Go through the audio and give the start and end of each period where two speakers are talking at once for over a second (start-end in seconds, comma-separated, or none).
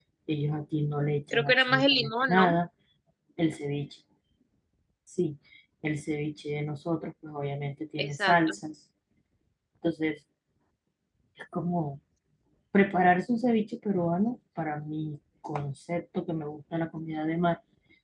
1.3-2.5